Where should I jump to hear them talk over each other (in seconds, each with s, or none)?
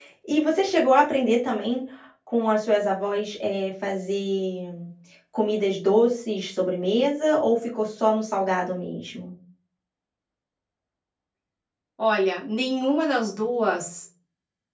none